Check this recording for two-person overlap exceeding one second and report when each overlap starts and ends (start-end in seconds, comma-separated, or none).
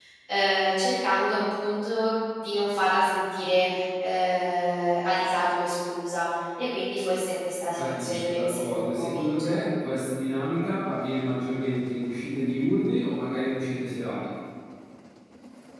7.8-9.6